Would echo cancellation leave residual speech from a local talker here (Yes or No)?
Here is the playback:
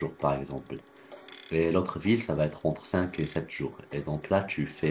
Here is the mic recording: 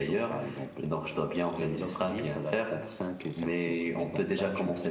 Yes